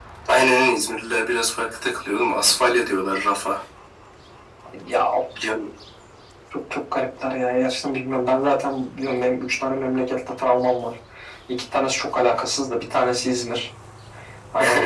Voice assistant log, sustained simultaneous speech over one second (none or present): none